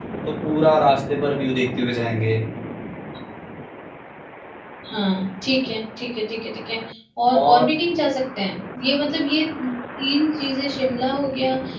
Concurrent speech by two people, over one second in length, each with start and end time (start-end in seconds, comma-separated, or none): none